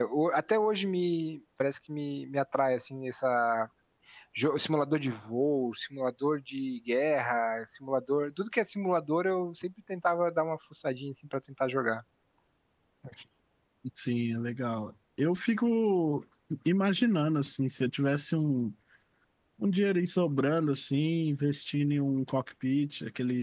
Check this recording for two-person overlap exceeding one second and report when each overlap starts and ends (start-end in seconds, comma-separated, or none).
none